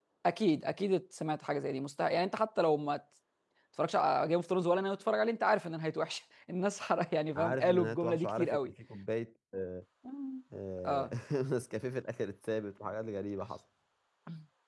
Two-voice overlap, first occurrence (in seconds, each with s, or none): 7.3 s